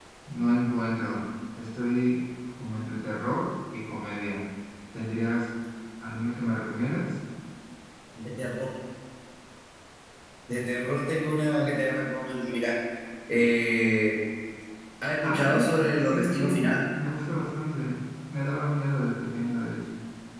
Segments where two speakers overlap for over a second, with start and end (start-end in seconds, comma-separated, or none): 15.2-16.6